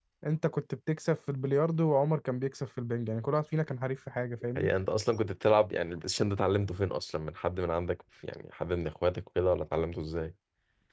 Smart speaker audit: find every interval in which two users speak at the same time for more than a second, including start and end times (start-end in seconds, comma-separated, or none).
none